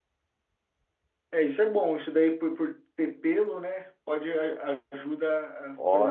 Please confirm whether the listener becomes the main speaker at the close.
No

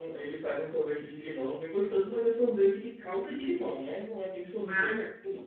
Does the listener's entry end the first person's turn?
No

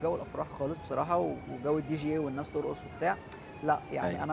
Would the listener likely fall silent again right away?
Yes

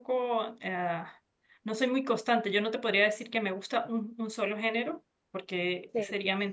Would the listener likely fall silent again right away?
Yes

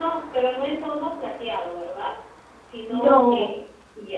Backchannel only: Yes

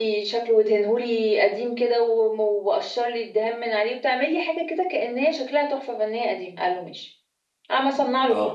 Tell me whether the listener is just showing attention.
Yes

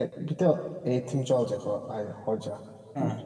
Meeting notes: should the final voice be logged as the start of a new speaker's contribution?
Yes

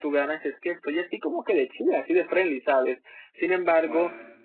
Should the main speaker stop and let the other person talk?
No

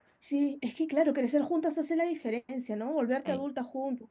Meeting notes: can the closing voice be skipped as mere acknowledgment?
Yes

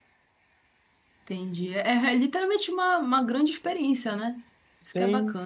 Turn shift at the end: Yes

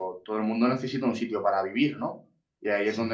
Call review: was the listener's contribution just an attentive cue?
Yes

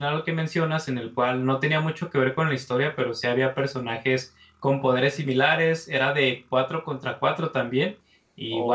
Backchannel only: Yes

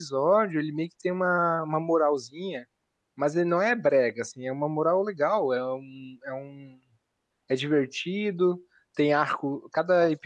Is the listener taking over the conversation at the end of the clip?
No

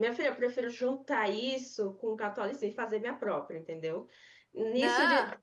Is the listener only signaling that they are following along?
Yes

